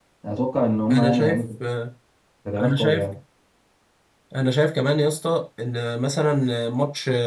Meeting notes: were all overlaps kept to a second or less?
Yes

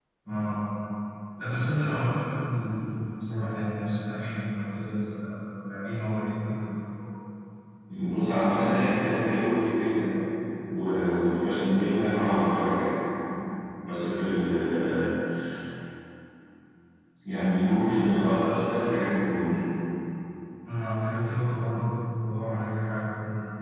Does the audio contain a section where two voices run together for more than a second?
No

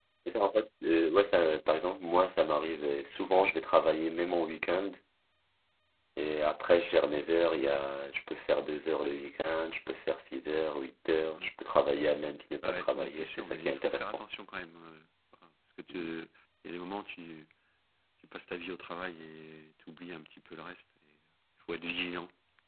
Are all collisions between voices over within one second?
No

